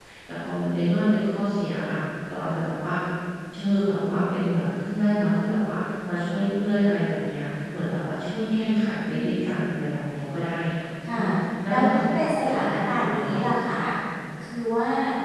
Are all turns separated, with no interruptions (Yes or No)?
No